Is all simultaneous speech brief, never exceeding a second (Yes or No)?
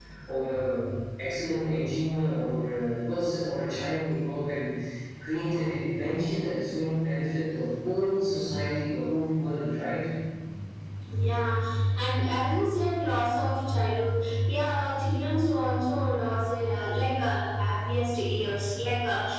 Yes